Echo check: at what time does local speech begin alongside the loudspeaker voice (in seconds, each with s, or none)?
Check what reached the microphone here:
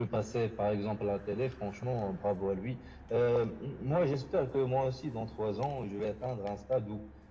none